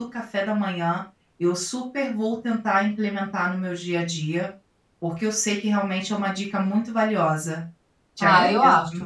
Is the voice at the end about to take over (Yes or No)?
Yes